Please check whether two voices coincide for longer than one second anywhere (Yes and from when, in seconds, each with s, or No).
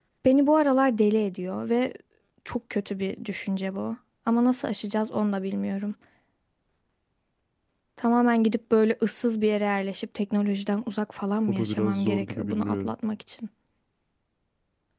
Yes, from 11.5 s